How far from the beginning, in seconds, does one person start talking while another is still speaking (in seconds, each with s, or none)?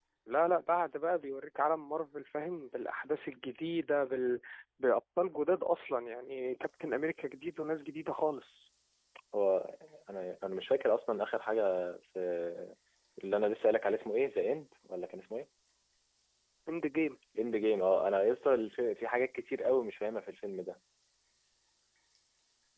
none